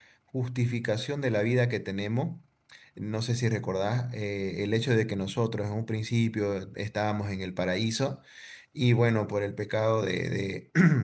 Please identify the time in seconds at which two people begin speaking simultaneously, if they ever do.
none

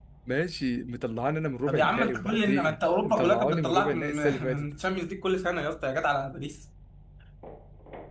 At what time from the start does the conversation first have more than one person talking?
2 s

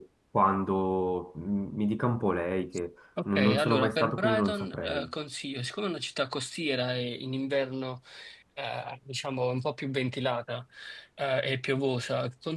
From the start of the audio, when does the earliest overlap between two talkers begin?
3 s

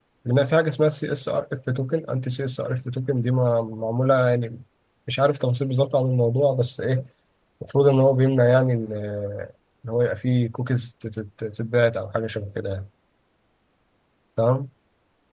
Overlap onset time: none

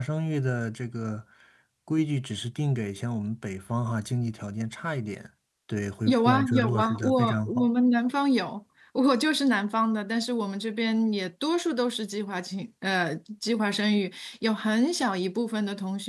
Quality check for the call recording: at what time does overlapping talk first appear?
6 s

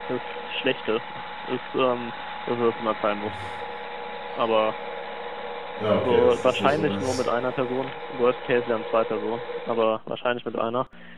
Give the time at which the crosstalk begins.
6 s

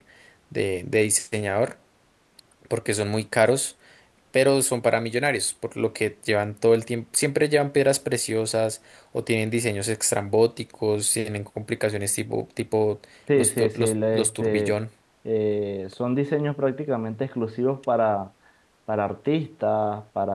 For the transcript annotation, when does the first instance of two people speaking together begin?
13 s

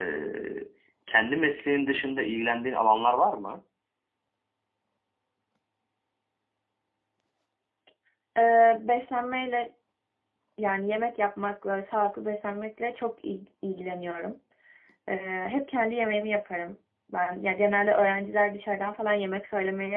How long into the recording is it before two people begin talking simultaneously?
none

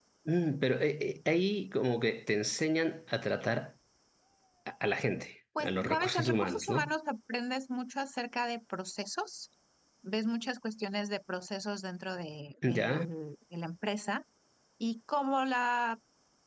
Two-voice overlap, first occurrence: 6 s

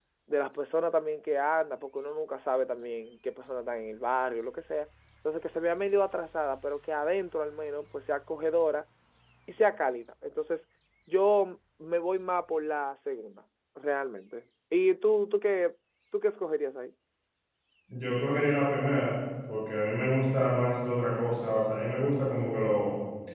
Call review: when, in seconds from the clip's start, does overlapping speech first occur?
none

